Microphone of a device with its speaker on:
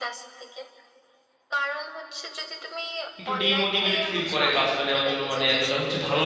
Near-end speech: present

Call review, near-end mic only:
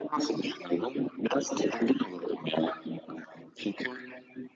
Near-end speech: none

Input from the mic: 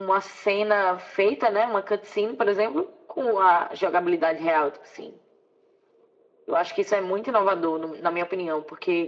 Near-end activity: none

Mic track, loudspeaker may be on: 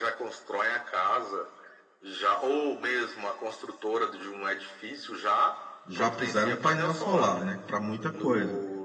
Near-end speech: present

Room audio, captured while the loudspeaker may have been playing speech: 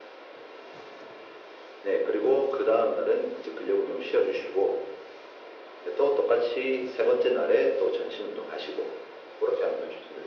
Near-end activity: none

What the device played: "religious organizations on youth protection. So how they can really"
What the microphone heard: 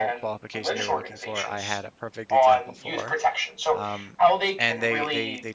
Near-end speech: present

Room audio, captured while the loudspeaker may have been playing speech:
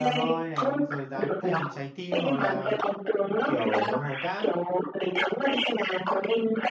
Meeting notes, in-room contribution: present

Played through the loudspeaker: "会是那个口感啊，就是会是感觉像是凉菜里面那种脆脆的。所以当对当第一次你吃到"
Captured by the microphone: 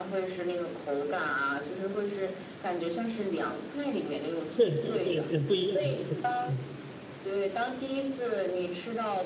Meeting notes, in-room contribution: present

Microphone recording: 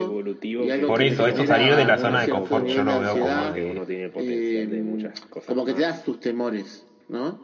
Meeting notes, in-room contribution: present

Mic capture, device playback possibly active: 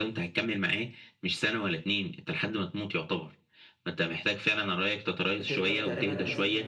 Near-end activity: present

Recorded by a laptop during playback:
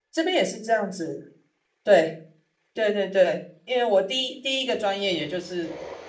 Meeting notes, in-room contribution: present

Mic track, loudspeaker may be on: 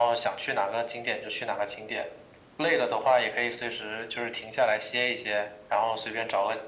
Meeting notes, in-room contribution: none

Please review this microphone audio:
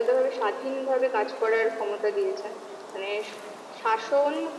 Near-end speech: none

